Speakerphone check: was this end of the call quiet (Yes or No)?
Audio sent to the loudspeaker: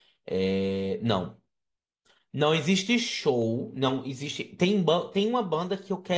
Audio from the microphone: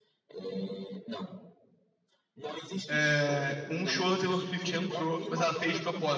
No